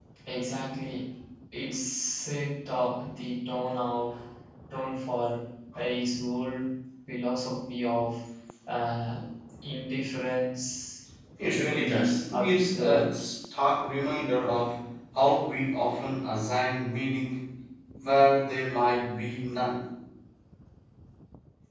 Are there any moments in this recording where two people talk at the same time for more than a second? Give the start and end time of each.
11.6-13.1

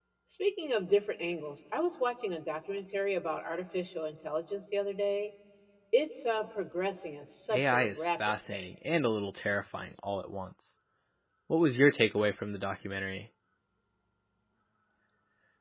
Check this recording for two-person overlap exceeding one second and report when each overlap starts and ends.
7.5-8.9

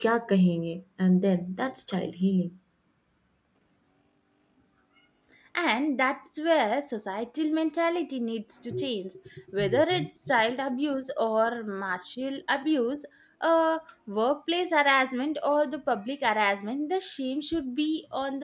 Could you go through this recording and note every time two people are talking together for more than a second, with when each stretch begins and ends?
none

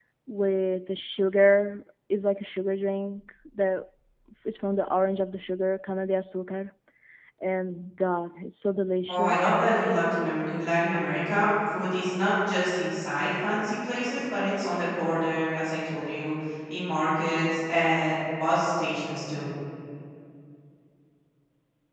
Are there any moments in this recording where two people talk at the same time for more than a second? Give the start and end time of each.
none

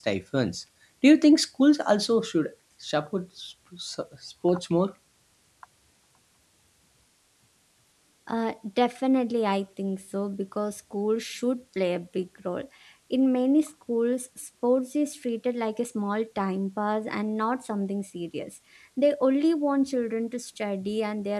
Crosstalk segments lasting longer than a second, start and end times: none

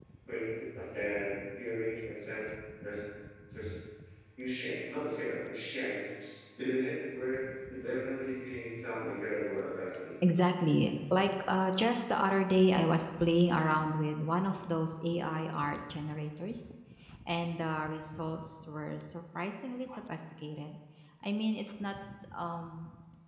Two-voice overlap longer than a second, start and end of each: none

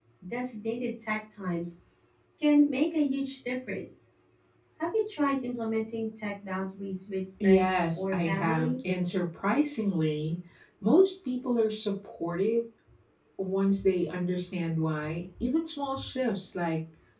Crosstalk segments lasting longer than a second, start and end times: 7.4-8.7

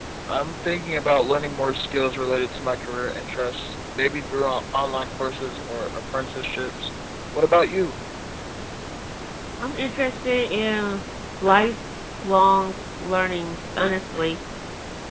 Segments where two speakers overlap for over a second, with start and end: none

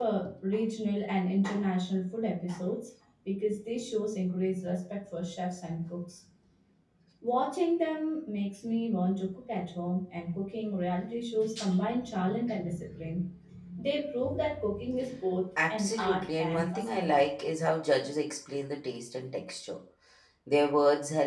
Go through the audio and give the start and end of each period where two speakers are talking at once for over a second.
15.7-17.2

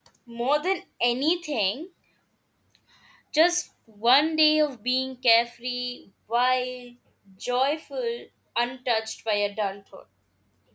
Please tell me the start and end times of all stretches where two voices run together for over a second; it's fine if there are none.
none

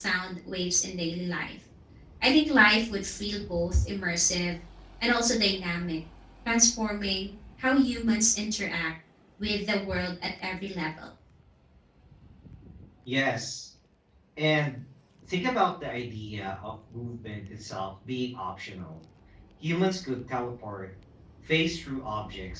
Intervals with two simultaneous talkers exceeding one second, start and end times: none

